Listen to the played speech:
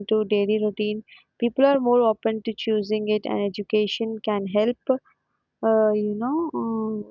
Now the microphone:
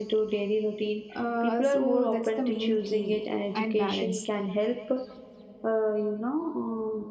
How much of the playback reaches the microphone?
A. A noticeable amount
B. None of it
A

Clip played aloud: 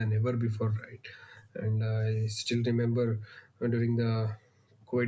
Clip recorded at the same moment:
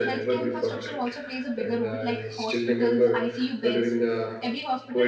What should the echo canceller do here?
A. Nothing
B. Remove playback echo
B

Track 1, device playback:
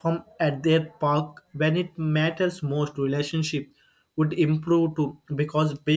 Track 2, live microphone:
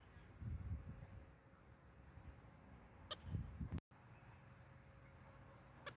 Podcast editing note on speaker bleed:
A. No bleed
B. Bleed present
A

